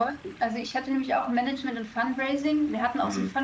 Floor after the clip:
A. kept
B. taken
A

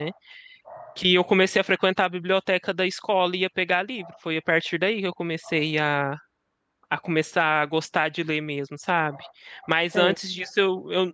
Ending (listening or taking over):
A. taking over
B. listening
B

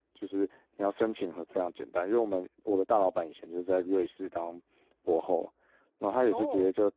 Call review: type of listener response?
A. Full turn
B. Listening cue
B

